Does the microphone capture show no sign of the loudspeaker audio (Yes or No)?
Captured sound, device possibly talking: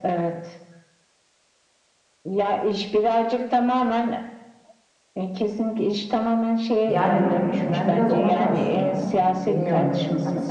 No